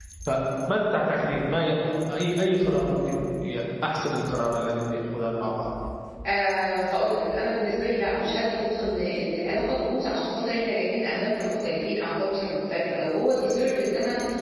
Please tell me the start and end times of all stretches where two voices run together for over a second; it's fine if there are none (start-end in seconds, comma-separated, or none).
none